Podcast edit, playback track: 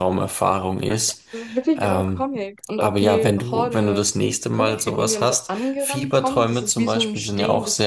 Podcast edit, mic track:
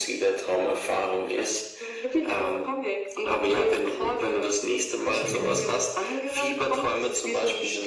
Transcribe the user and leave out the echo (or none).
Sehr gerne.